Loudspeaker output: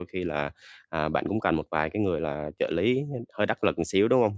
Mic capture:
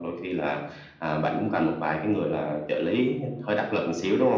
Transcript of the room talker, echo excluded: none

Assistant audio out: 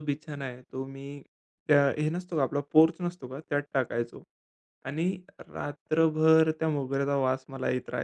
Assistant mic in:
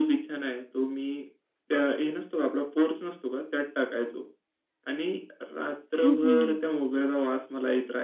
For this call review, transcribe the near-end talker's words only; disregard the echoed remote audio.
हं, हं.

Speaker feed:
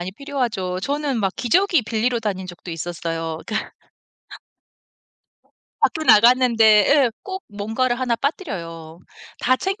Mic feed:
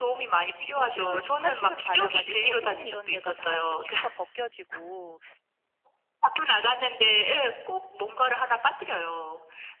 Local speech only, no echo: 뭐 치료를 독한 치료를 받아 가지고 손 이런 데가 다 이제 피부가 벗겨지고

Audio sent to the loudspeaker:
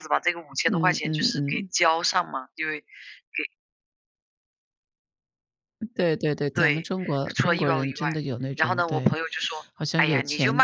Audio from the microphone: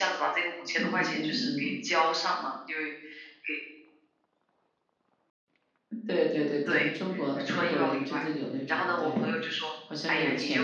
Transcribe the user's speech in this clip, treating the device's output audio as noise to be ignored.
none

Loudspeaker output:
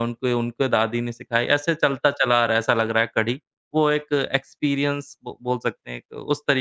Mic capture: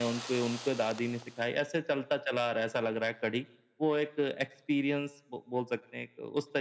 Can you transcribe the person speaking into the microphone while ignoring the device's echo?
none

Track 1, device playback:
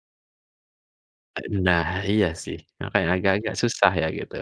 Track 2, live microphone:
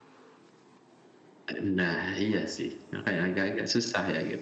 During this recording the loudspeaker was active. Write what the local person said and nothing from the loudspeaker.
none

